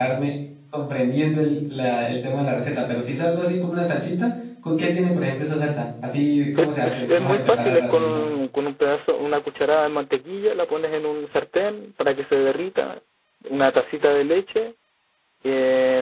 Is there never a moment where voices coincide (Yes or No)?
No